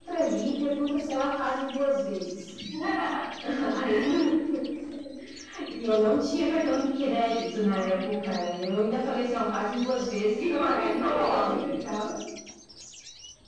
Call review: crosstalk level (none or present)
present